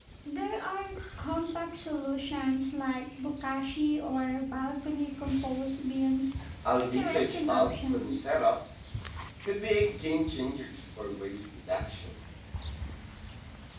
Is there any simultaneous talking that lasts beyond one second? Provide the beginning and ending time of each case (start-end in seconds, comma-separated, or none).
6.8-8.3